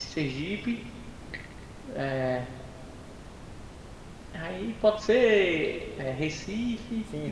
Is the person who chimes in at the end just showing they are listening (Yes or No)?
No